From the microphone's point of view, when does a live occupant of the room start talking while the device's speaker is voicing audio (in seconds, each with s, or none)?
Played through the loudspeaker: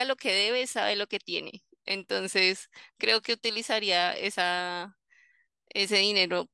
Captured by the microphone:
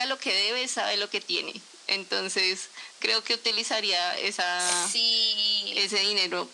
4.6 s